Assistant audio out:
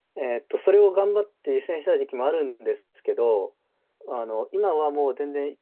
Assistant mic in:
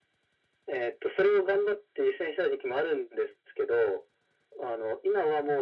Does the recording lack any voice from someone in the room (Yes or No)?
Yes